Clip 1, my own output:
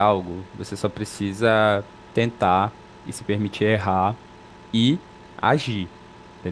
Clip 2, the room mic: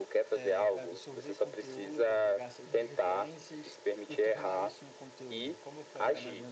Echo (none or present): present